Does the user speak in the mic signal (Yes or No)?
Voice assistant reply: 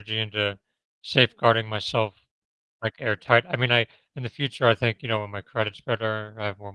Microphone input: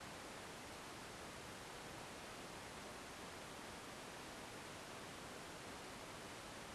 No